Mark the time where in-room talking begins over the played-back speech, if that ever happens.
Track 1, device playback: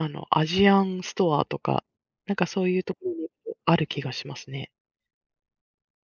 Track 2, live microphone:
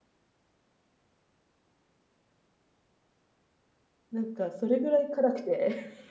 4.1 s

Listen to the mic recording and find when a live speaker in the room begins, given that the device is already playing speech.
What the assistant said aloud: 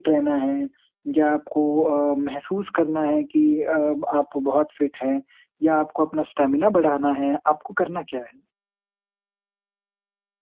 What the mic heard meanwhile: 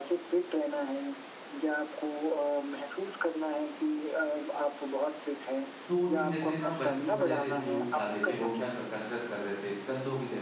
5.9 s

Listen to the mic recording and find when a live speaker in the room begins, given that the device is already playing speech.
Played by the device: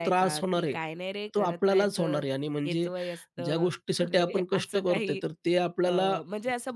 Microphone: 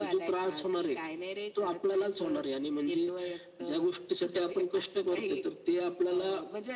none

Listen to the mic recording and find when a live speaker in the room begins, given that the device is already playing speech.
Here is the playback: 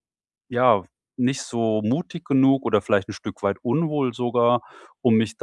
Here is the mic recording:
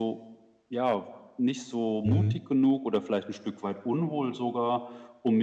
2.0 s

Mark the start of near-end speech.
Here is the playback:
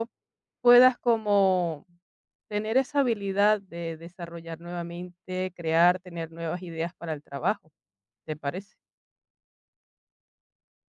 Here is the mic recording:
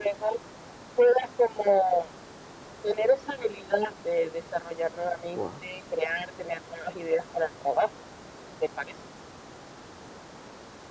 5.3 s

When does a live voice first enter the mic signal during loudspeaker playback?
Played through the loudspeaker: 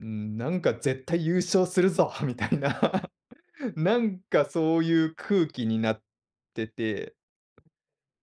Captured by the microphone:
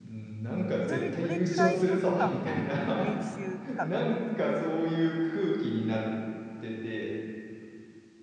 0.8 s

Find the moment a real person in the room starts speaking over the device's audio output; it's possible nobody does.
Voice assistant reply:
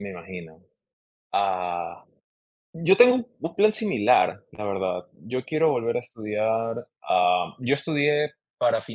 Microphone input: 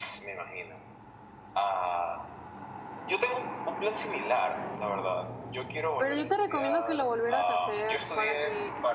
6.0 s

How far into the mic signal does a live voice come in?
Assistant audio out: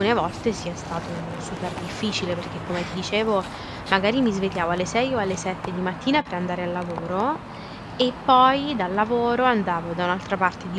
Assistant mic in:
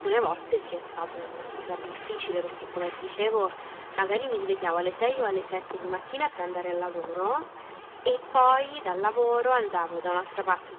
none

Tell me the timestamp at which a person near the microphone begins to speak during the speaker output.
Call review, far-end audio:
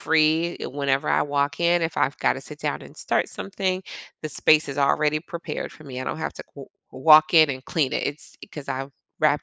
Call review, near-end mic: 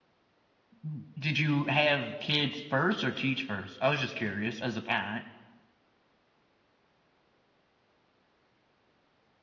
0.8 s

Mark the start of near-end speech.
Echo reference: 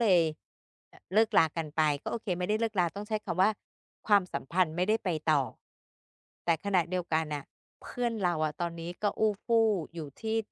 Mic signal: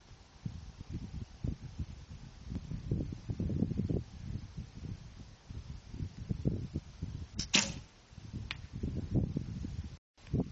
none

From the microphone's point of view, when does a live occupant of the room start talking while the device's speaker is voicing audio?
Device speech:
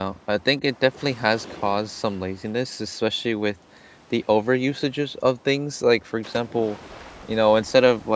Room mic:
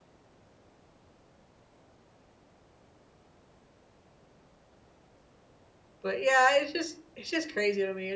6.0 s

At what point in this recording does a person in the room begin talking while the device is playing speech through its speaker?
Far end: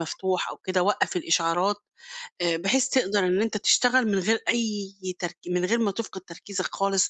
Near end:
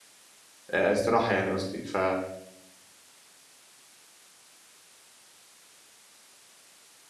0.7 s

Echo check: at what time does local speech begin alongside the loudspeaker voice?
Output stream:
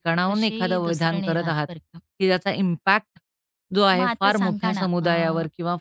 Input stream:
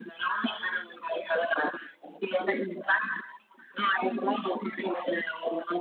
none

